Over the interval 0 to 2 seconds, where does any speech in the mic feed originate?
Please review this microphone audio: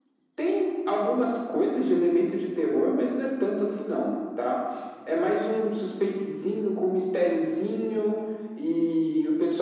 echo only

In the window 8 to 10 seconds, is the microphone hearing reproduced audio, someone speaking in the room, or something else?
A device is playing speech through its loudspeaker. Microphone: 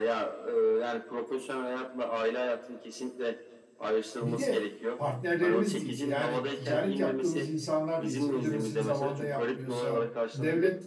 both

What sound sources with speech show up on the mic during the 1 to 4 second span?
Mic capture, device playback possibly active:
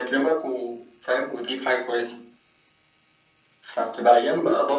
echo only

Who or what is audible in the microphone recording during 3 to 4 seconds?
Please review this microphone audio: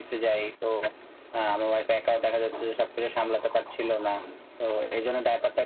echo only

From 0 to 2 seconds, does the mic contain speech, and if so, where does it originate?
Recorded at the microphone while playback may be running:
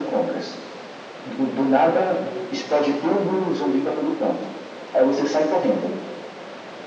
echo only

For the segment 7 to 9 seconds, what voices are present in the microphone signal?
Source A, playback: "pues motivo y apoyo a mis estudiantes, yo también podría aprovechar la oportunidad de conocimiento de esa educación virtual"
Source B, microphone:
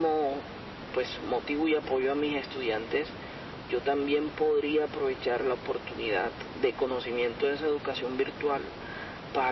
echo only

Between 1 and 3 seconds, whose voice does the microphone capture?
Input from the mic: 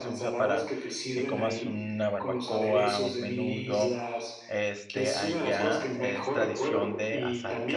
both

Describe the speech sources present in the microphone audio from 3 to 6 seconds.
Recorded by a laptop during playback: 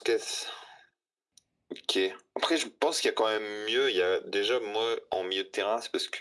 echo only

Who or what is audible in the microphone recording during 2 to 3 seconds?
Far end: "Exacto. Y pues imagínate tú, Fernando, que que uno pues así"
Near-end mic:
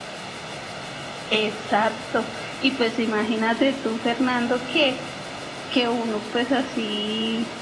echo only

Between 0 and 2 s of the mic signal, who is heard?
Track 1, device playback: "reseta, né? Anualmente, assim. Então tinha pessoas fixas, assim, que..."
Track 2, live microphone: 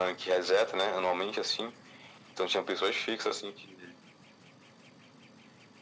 echo only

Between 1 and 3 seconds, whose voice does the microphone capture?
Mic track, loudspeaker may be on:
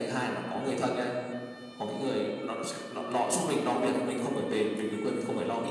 echo only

